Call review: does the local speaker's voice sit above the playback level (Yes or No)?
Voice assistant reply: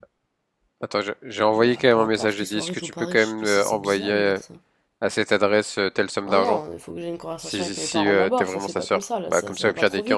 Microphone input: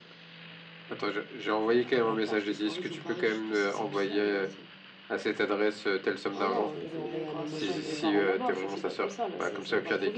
No